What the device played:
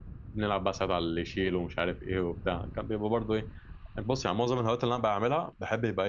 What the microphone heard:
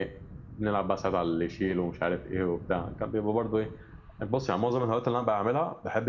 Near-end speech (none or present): none